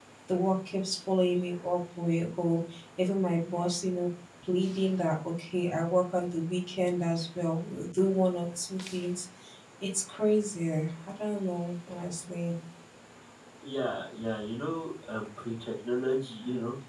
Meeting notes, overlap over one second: none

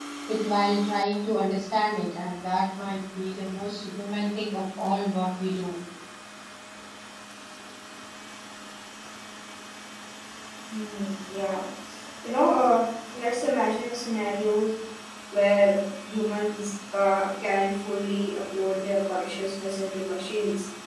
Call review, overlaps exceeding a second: none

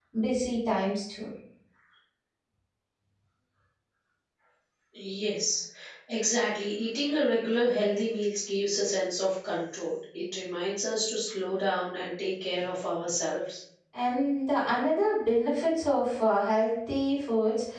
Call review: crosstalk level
none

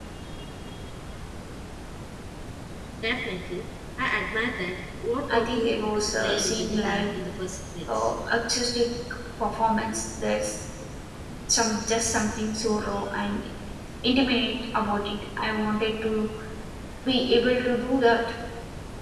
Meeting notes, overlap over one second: present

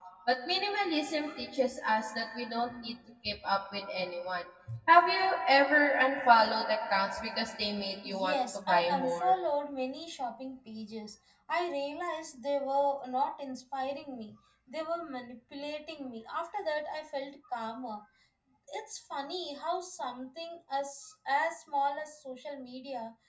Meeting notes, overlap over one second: present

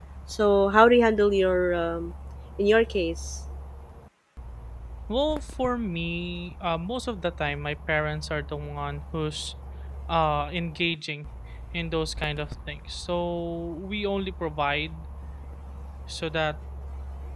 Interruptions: none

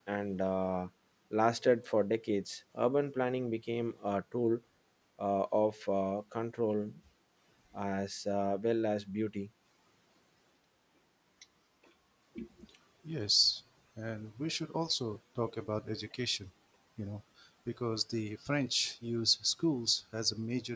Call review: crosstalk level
none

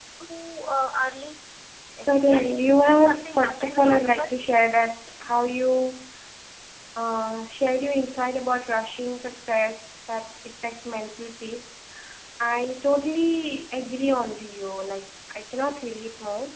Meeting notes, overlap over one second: present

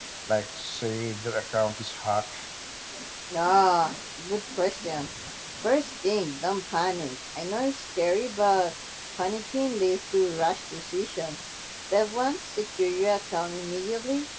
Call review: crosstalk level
none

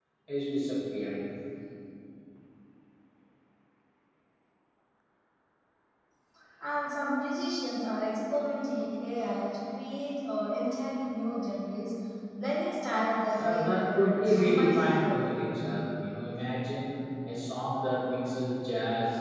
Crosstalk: present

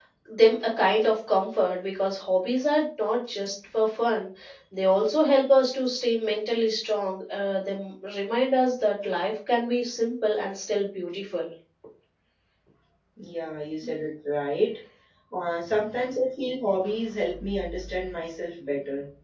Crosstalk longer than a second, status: none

